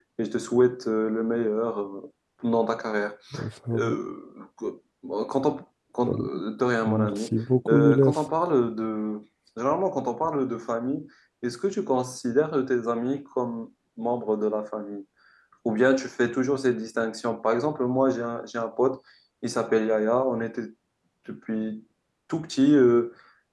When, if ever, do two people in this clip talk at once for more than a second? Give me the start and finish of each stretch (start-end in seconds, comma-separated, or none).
none